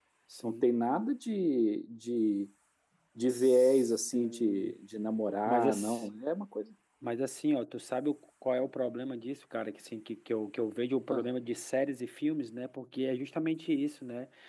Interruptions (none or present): present